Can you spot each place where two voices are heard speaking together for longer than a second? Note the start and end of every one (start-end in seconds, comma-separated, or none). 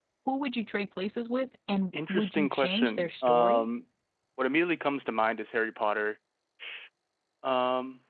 2.1-3.7